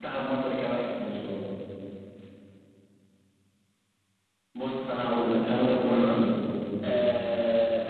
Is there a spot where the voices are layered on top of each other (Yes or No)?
Yes